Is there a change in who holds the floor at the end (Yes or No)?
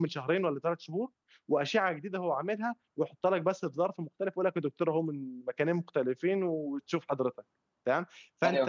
No